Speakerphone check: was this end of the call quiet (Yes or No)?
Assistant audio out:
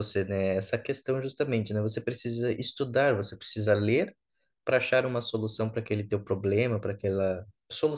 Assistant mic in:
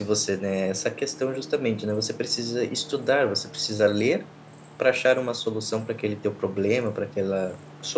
Yes